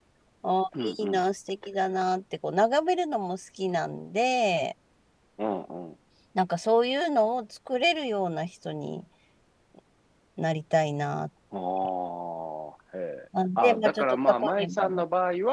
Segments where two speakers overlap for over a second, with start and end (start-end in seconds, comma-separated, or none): 13.6-15.0